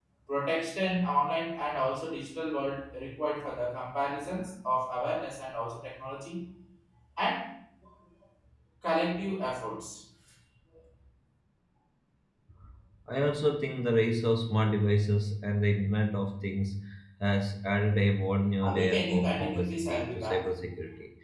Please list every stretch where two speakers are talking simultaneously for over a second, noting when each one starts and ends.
18.6-20.4

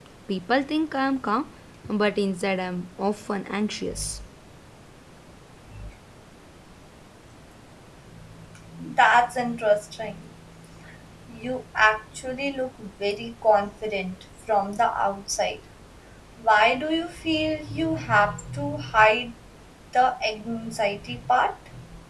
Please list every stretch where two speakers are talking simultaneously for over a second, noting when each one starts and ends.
none

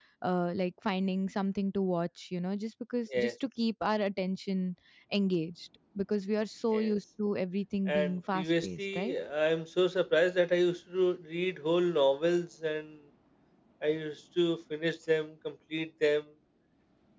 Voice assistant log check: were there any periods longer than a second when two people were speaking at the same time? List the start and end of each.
7.9-9.2

